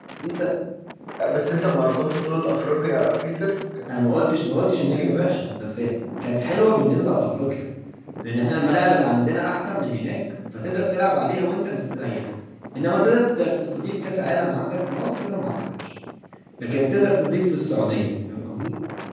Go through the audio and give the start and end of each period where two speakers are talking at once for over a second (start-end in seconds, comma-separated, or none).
none